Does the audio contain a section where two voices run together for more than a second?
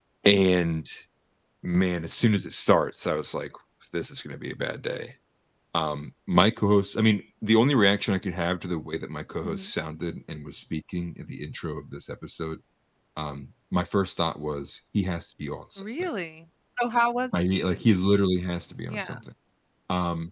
No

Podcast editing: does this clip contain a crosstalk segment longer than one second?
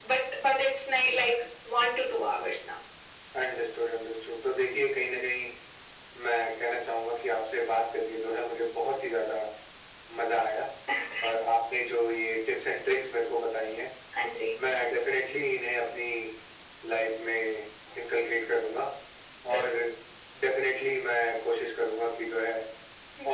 No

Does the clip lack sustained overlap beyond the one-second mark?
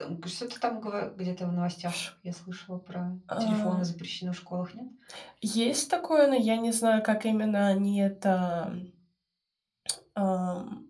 Yes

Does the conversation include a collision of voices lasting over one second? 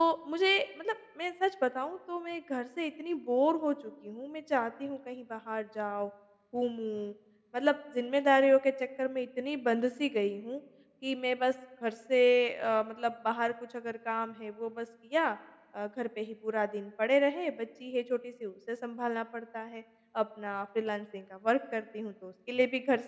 No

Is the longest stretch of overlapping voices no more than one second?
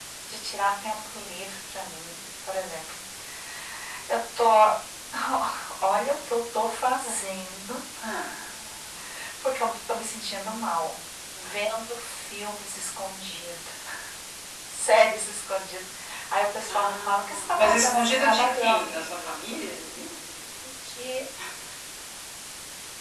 No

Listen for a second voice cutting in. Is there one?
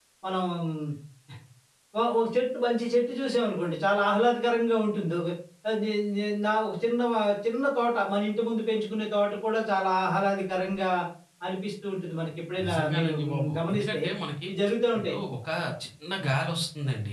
Yes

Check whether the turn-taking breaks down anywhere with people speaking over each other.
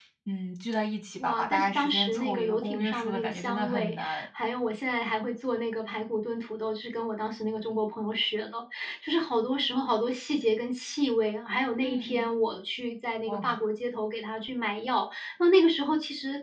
Yes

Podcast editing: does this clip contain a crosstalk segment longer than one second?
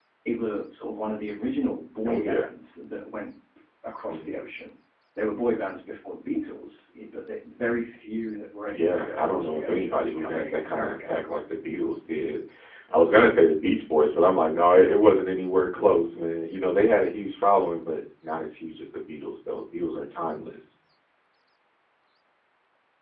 Yes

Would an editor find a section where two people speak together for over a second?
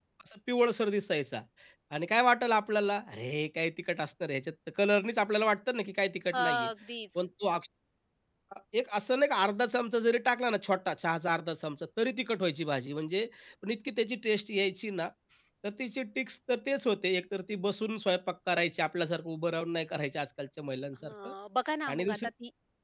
No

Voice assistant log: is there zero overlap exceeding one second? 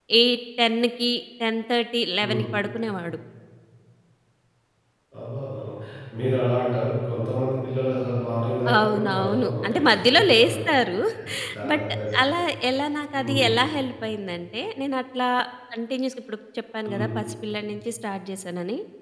No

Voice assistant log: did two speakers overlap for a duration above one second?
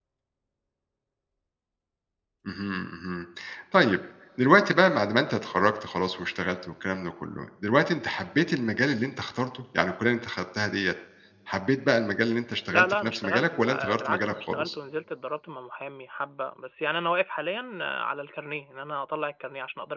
Yes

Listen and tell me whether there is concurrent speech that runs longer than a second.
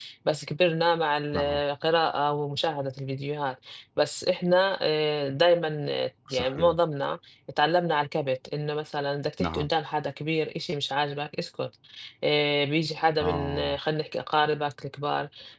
No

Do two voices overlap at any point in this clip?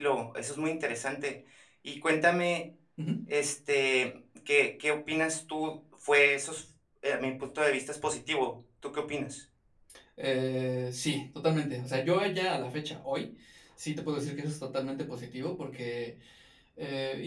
No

